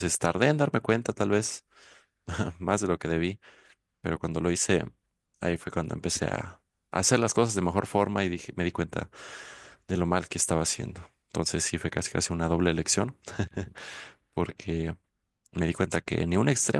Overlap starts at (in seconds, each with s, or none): none